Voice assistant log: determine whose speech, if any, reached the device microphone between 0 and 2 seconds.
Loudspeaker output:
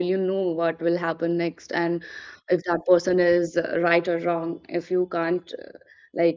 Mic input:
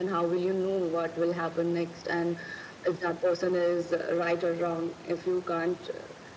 echo only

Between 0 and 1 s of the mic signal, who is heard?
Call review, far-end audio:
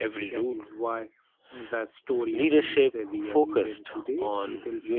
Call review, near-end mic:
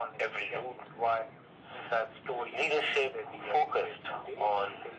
echo only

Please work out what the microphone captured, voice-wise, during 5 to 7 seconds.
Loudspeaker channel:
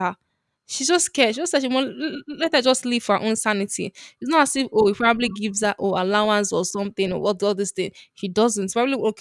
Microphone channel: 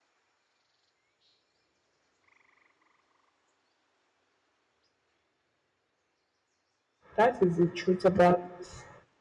neither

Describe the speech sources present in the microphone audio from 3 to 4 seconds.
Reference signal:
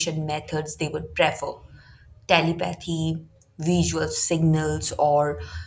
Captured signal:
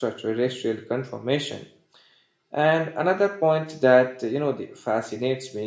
user only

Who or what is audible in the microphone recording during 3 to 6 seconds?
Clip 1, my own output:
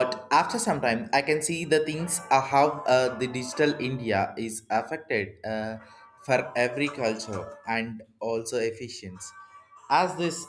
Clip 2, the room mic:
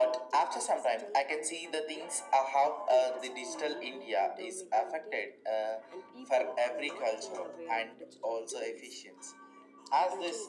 both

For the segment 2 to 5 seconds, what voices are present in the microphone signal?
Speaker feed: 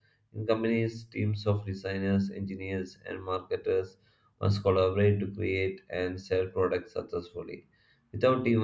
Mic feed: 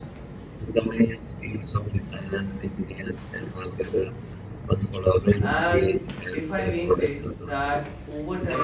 echo only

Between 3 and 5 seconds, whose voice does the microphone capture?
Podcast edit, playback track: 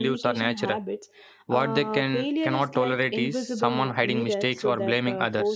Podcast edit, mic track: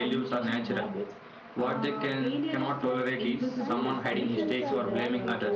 both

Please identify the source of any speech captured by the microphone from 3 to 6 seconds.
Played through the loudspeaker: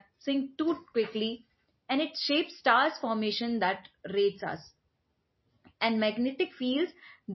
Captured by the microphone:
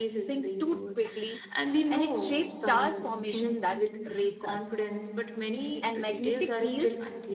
both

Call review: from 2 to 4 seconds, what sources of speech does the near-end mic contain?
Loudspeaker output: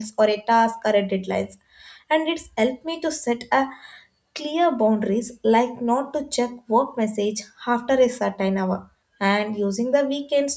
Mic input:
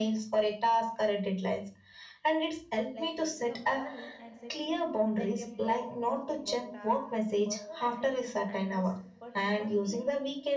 both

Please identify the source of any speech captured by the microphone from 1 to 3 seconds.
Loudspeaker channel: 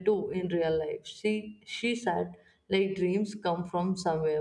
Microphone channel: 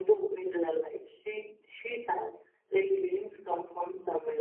echo only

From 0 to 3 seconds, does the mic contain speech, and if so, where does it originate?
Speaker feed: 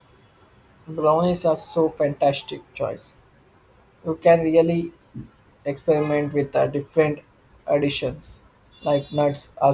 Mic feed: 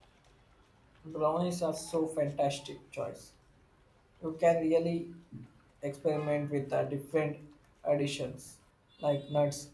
echo only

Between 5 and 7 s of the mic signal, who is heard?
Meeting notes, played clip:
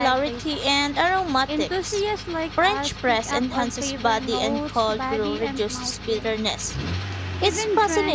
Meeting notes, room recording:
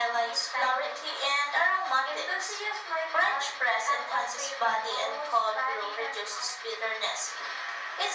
echo only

